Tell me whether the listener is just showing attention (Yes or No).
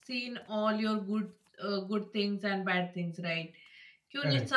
Yes